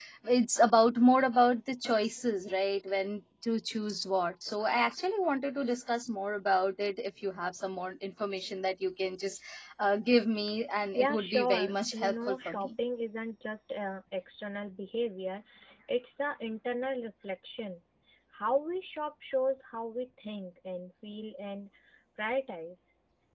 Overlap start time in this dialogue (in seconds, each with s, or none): 10.9 s